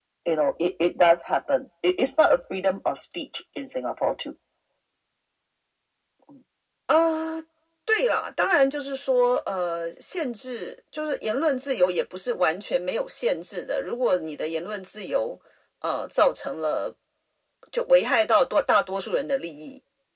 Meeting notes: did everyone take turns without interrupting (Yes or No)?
Yes